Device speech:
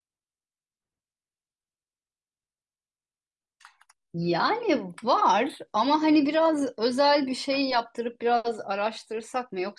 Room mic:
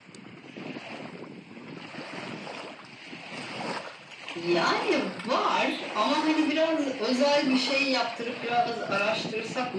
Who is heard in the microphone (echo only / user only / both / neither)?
echo only